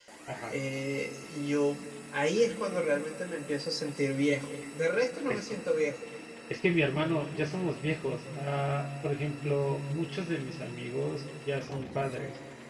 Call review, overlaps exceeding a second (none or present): none